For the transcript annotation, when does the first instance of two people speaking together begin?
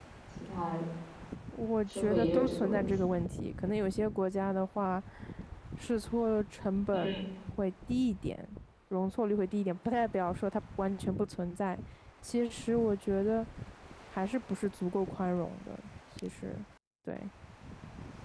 2 s

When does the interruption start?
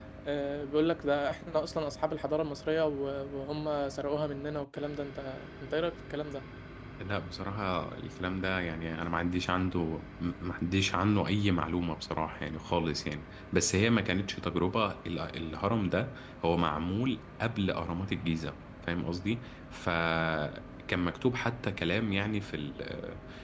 none

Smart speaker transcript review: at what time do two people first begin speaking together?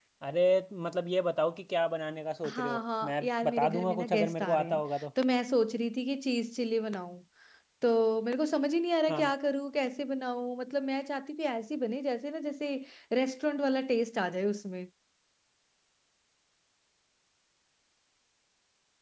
2 s

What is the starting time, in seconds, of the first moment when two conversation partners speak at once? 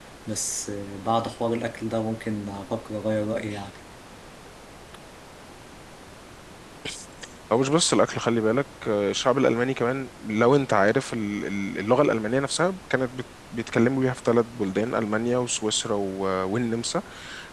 none

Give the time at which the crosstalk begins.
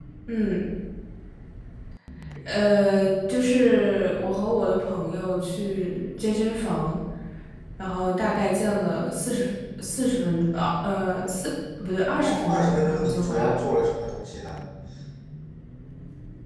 12 s

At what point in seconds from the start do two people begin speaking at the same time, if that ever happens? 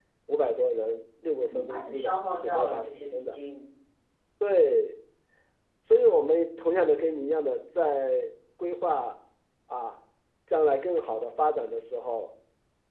2 s

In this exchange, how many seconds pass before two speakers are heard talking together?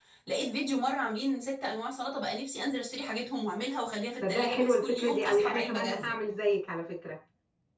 4 s

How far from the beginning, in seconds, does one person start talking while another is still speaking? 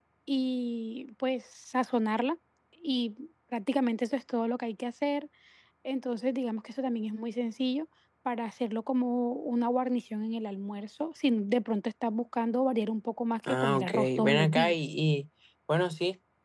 13 s

